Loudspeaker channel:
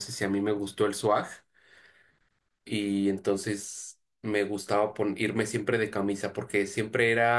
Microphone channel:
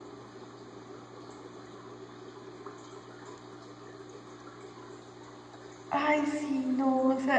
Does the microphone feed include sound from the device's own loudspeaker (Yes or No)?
No